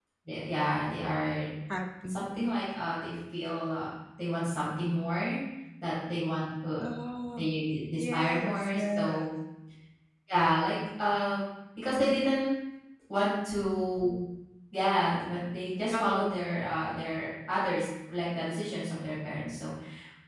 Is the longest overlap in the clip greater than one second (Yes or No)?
Yes